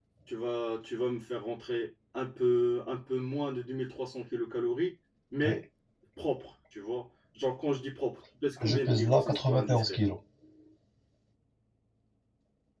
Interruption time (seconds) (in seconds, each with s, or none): 8.6 s